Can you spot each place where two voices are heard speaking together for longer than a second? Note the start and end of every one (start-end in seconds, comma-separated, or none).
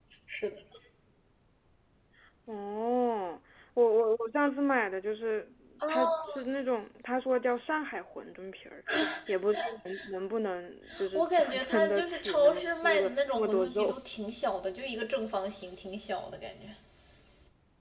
11.2-14.0